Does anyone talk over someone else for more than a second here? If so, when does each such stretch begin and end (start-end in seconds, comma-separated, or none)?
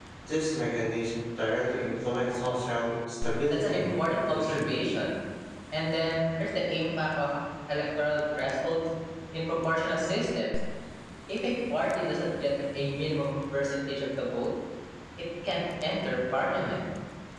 3.5-4.7